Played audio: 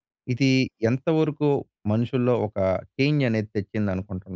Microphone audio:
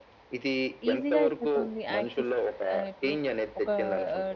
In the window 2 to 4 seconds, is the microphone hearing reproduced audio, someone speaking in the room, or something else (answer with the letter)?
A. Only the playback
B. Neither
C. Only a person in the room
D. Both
D